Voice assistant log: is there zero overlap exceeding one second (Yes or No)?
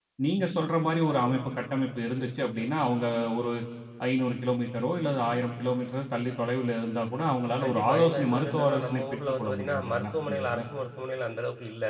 No